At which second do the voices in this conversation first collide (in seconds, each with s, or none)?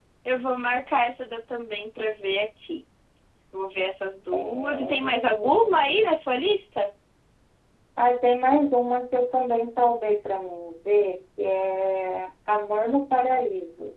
4.3 s